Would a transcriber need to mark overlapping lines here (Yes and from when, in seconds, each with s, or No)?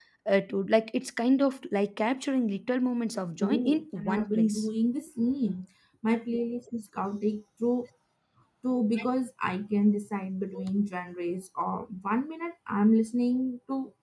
Yes, from 3.4 s